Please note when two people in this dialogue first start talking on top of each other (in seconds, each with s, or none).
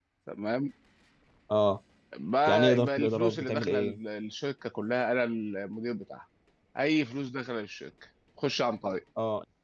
2.5 s